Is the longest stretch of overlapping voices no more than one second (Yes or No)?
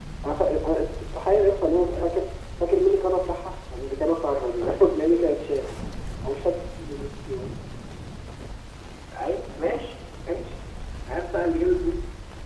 Yes